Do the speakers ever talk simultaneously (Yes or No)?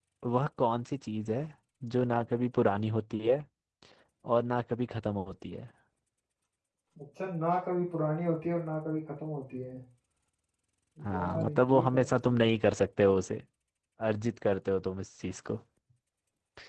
Yes